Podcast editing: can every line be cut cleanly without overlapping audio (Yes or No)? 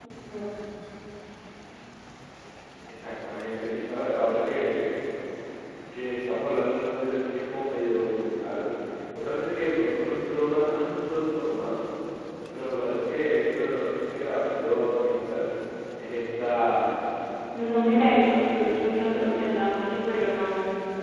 No